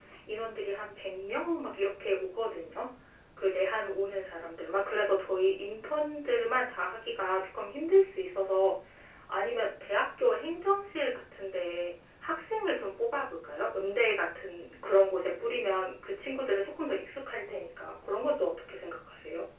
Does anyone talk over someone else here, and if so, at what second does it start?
none

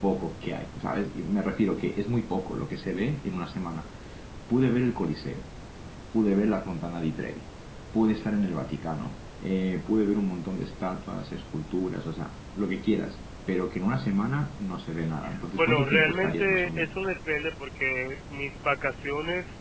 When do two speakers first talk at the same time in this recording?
15.6 s

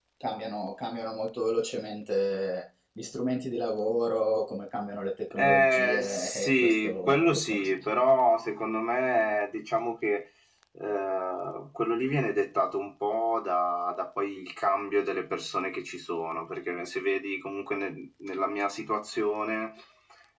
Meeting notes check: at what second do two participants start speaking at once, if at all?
5.3 s

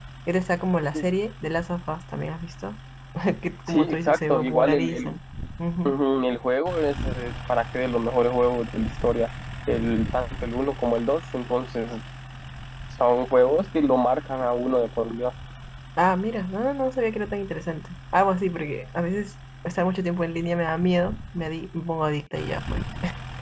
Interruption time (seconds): 3.7 s

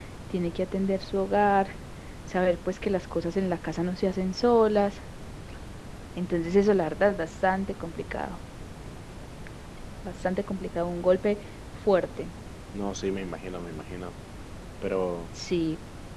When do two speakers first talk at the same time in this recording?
none

